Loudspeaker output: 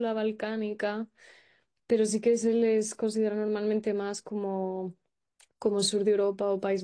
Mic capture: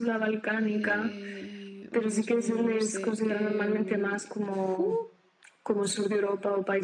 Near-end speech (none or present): present